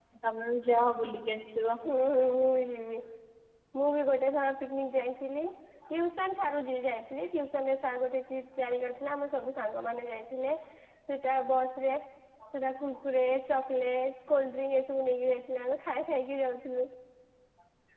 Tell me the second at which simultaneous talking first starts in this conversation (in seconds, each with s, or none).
none